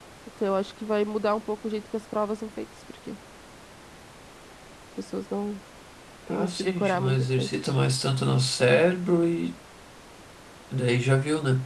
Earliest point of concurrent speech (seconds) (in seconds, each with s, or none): 6.3 s